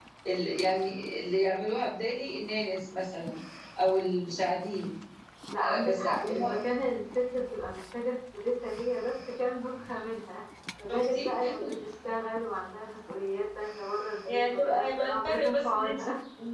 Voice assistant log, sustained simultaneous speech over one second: present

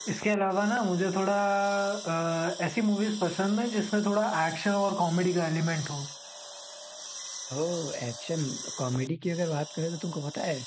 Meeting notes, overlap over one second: none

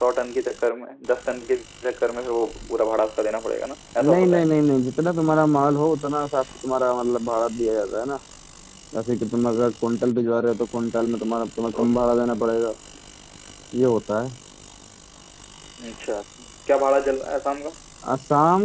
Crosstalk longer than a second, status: none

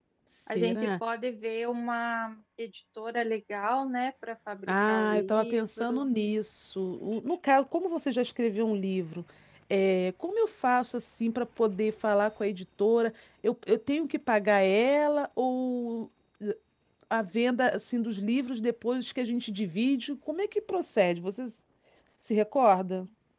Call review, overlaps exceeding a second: present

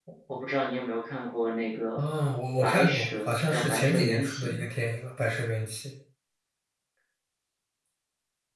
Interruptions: present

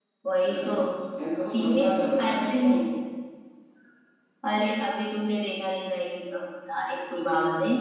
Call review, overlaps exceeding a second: present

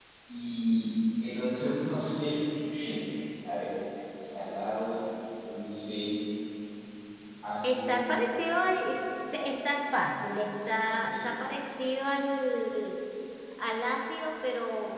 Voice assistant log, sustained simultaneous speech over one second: none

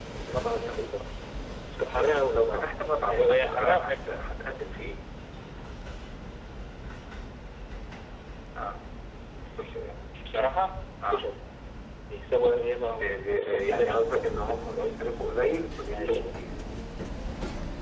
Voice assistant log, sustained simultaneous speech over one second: present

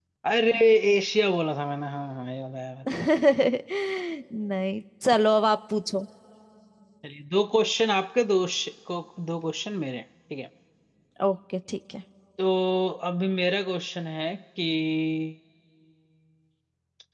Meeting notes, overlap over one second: none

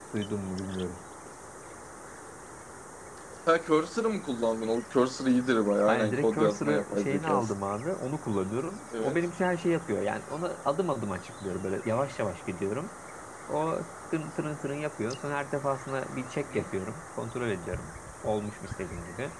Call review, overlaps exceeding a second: present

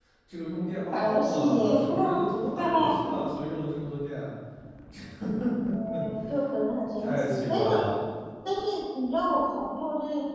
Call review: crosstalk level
present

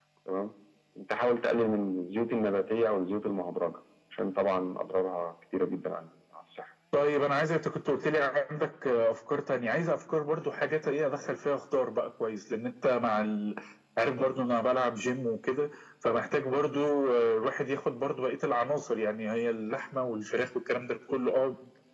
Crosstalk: none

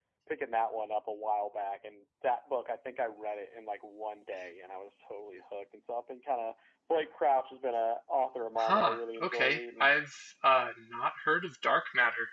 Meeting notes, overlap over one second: present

